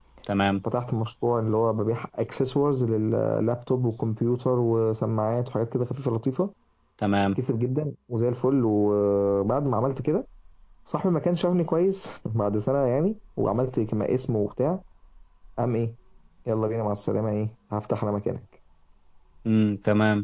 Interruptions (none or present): none